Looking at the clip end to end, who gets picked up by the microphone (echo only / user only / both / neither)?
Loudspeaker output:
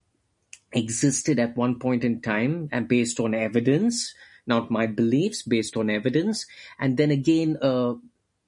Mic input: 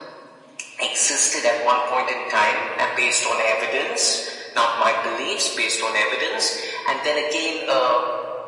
echo only